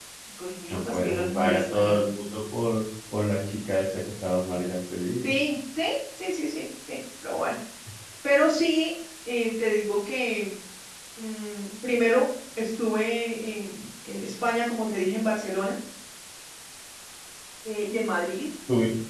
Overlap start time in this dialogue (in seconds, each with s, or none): 0.7 s